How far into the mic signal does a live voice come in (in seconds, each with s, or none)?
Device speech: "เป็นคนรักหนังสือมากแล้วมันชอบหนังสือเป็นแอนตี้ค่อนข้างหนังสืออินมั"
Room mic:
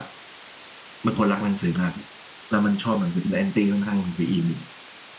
none